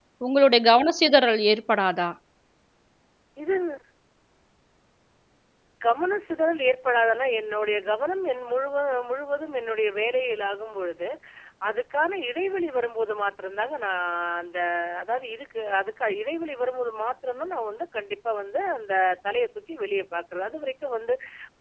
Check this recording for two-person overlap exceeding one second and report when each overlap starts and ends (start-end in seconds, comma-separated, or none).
none